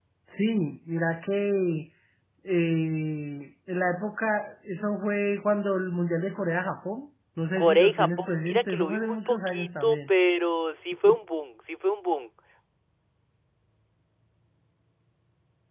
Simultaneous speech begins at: 8 s

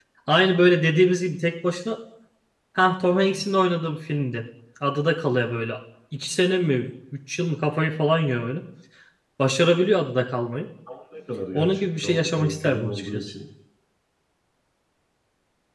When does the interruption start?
12 s

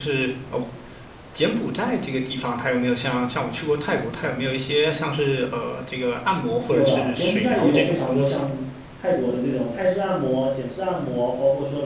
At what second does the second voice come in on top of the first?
7 s

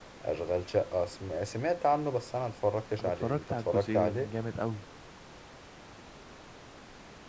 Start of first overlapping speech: 3 s

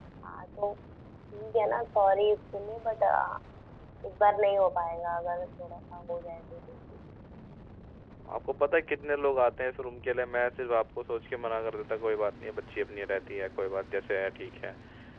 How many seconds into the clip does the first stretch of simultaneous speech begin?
none

